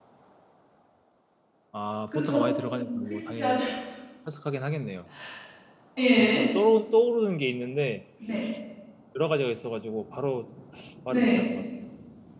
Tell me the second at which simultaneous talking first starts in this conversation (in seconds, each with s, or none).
2.1 s